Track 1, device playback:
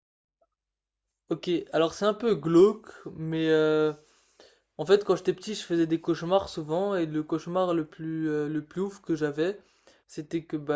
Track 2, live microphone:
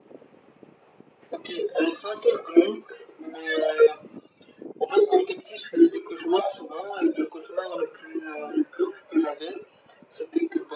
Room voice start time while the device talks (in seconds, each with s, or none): none